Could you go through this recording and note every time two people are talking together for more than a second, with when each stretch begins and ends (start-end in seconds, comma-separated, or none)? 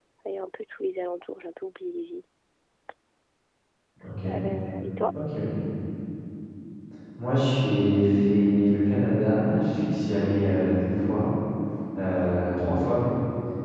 none